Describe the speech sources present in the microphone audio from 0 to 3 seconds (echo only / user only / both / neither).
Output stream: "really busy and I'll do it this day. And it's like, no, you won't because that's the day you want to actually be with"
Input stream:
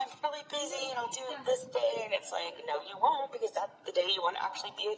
both